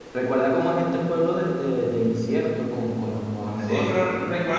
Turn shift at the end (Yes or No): Yes